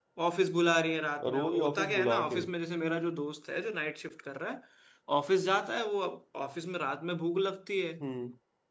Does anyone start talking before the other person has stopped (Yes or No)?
Yes